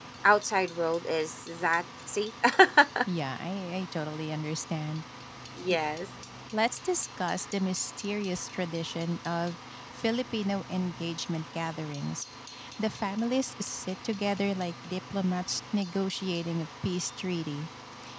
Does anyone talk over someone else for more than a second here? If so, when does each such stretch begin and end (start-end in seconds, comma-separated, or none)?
none